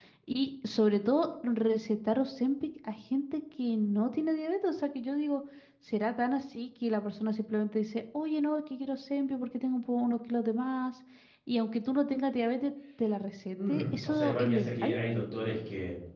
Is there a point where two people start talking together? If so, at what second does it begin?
13.6 s

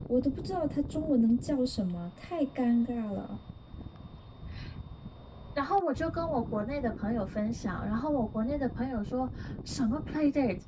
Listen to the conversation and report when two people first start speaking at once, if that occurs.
none

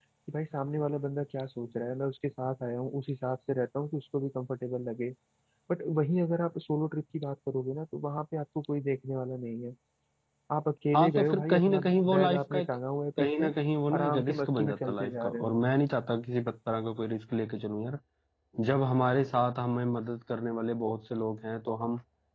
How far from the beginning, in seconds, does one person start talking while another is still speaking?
10.9 s

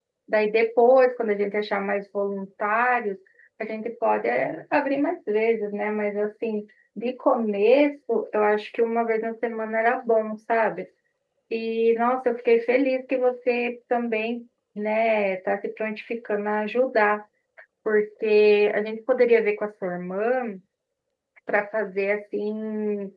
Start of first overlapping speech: none

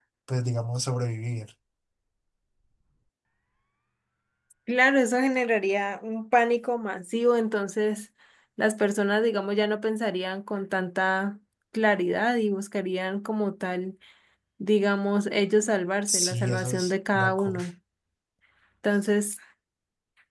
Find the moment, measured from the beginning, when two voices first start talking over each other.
16.1 s

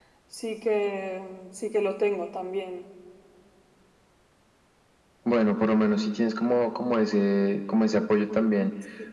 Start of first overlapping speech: none

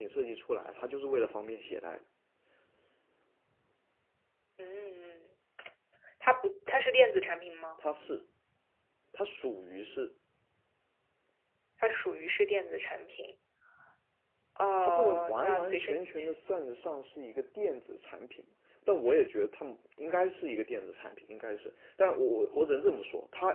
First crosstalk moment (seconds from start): 14.8 s

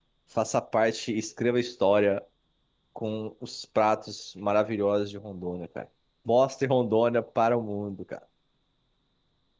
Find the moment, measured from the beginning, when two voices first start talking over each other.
none

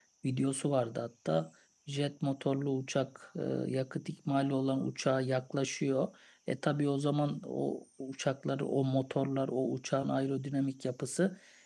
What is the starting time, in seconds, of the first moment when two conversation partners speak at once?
none

